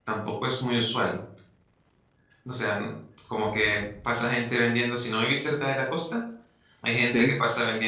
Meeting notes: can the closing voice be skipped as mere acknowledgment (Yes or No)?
Yes